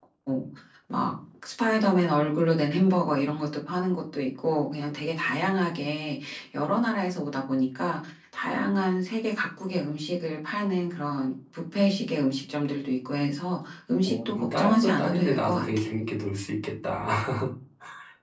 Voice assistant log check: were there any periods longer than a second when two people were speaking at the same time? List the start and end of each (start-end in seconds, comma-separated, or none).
14.1-15.8